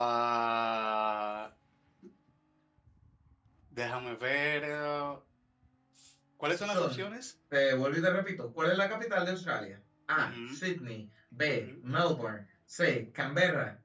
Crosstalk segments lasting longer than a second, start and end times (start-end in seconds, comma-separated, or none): none